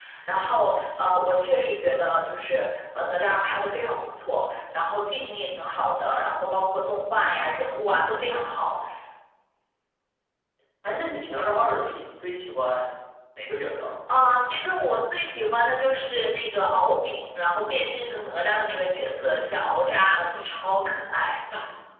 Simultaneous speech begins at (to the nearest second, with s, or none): none